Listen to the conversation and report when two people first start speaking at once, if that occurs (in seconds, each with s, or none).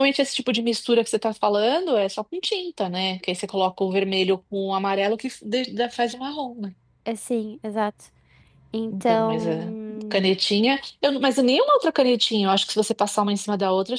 8.9 s